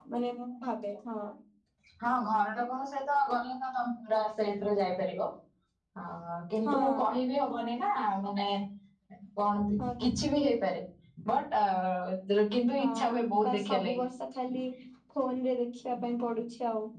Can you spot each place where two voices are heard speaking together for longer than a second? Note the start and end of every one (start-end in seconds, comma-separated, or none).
12.8-14.0